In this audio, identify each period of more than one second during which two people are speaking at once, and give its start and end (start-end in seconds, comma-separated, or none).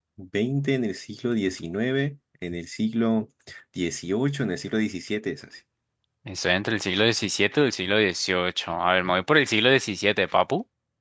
none